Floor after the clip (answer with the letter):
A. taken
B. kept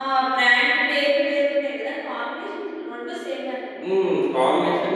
A